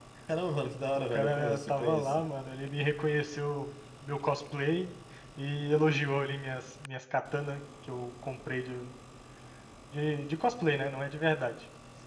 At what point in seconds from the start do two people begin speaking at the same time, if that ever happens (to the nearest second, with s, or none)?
1 s